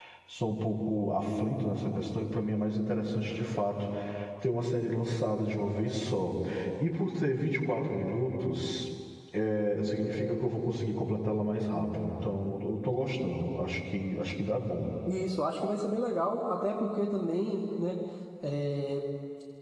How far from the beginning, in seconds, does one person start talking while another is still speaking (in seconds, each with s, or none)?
none